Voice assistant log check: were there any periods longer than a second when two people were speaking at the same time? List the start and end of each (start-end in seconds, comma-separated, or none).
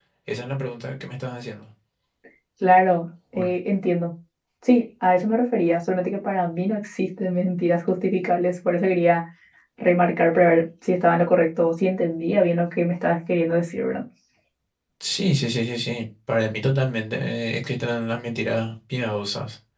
none